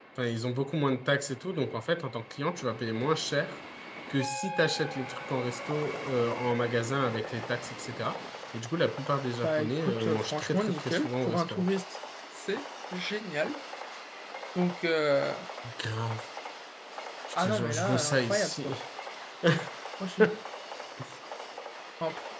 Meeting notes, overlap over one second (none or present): present